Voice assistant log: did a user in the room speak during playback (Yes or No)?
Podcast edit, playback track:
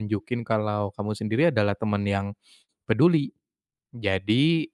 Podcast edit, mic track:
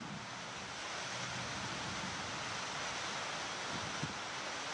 No